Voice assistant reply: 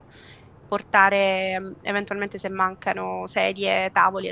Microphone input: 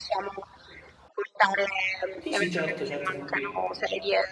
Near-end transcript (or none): Sì, sì, certo, certo, sono qui.